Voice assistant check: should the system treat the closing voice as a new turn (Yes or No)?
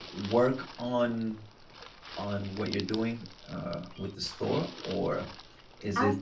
No